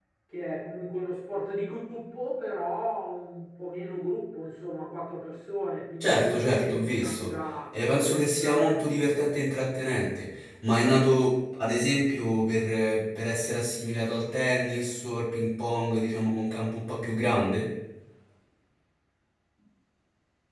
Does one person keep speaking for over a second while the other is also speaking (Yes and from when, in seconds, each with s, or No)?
Yes, from 6.0 s